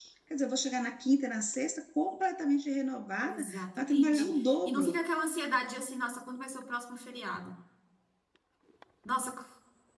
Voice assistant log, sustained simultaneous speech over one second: present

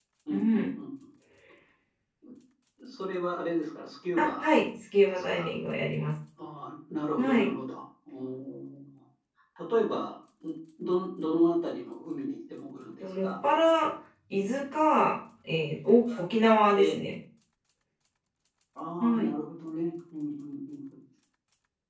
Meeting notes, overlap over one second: none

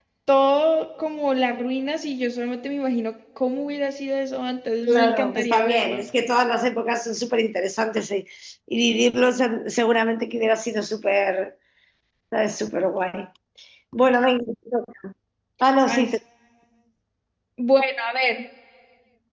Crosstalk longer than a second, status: present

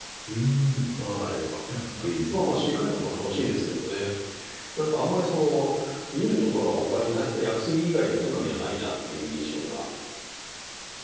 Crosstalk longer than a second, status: none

